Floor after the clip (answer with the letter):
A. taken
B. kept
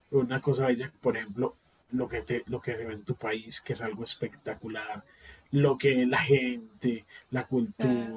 B